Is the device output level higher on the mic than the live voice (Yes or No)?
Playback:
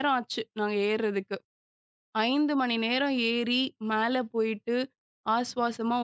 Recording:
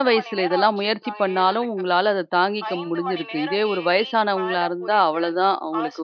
No